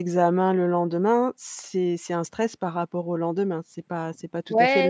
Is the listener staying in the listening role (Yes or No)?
No